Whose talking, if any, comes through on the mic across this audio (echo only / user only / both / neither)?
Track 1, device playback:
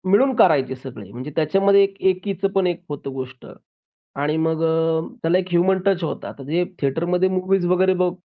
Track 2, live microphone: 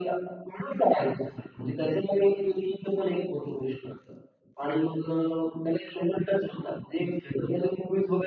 echo only